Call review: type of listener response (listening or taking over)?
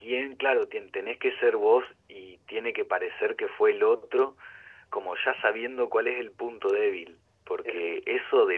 listening